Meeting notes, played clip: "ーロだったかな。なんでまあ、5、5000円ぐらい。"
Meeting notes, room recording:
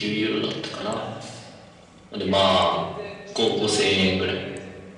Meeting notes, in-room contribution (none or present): present